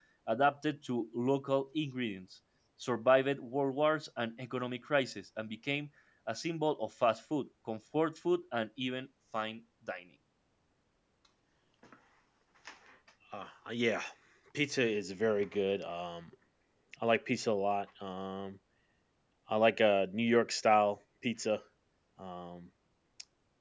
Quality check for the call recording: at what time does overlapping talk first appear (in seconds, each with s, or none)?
none